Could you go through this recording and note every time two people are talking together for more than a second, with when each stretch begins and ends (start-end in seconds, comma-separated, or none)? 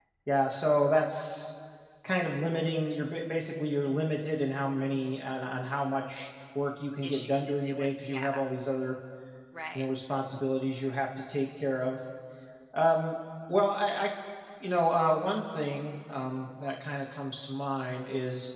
7.0-8.4